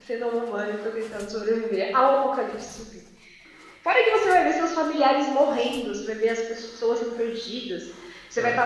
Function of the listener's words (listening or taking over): listening